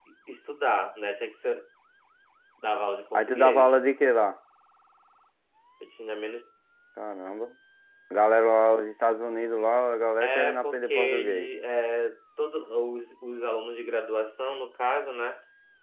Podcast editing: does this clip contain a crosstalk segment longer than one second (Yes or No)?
Yes